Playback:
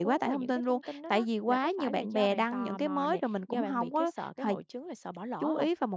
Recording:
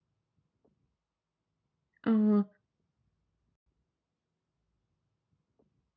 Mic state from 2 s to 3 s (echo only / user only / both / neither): user only